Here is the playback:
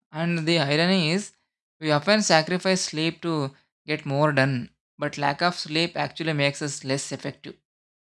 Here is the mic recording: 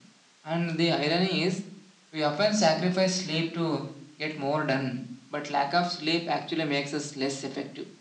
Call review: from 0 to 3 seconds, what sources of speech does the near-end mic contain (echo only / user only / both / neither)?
echo only